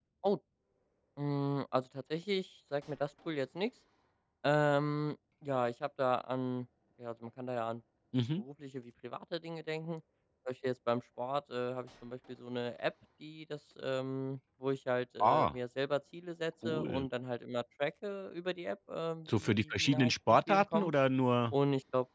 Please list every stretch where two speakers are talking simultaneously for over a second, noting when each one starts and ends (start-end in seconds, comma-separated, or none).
19.4-20.9